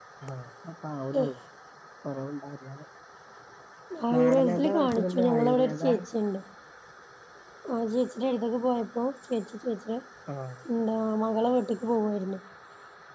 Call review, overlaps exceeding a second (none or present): present